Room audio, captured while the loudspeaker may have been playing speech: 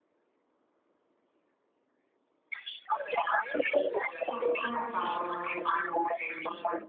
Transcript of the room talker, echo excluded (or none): Co- com'è stato l'esperienza di cena?